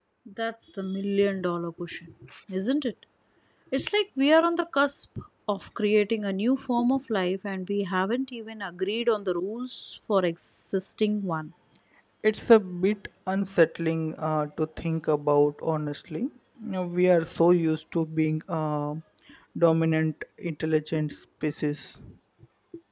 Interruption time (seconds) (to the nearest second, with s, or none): none